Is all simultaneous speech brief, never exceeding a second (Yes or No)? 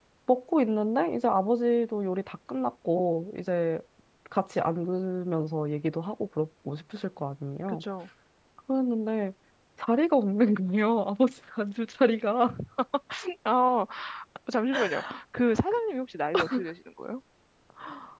Yes